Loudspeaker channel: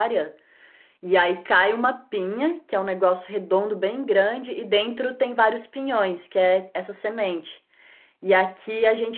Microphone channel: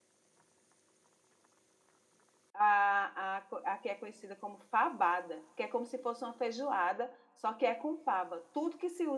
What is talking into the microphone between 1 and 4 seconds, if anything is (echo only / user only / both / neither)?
user only